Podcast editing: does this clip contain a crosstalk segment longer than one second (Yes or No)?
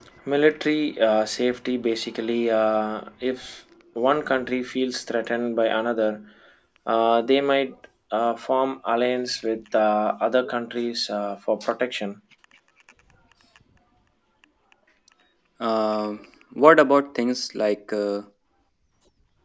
No